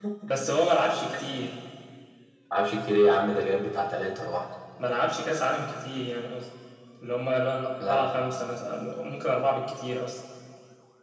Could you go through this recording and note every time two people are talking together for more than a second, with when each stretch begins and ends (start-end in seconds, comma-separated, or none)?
none